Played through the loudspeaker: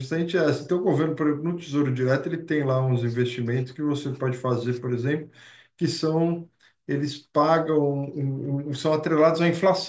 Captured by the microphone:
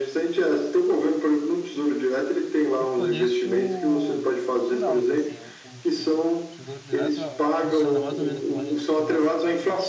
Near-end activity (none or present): present